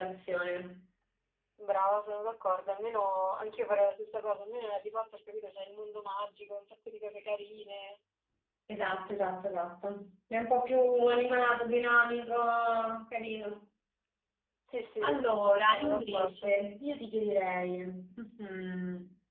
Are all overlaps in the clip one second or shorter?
No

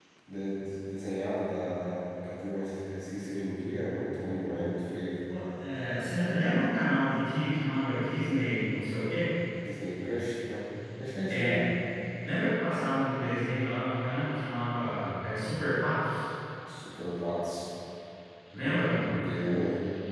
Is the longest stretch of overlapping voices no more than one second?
Yes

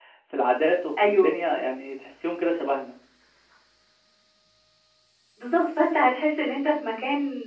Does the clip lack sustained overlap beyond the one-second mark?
Yes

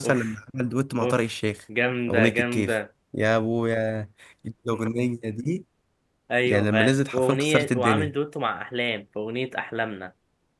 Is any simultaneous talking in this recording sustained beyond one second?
Yes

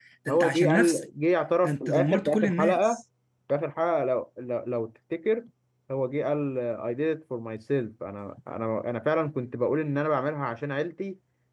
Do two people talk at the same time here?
Yes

